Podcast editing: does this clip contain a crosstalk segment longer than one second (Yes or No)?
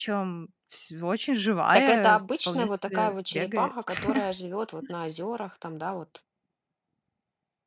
Yes